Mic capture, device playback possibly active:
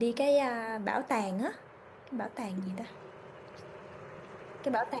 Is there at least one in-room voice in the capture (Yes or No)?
Yes